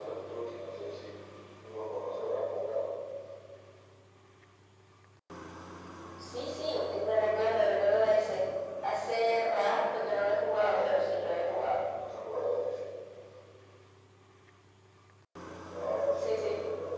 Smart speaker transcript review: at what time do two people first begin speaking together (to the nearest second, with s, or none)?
10 s